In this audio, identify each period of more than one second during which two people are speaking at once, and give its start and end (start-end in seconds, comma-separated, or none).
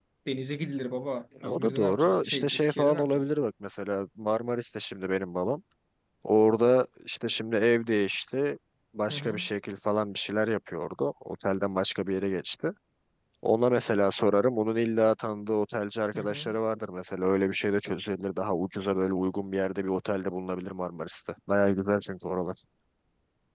1.4-3.3